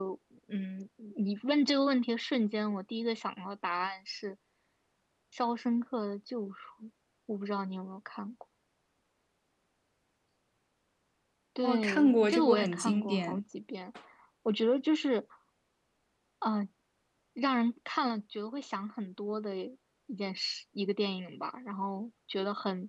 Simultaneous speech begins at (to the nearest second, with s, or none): 12 s